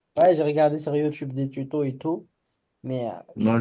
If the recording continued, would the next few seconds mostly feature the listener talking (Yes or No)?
Yes